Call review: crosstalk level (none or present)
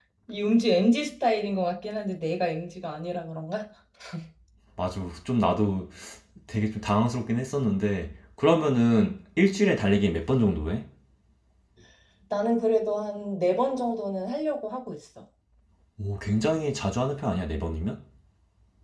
none